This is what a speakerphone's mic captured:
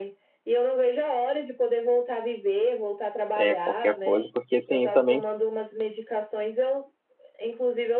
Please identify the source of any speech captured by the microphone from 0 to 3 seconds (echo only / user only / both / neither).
echo only